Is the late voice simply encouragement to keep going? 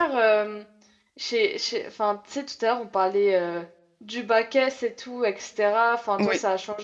Yes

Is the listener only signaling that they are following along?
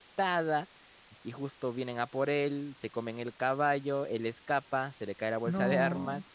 Yes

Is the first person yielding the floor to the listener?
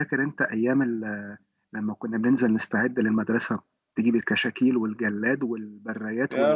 Yes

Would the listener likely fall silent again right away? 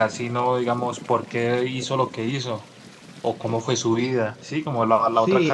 No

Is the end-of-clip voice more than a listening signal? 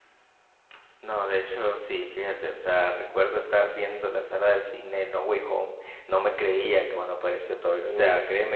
No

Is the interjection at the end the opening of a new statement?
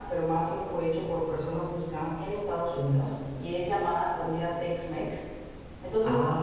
No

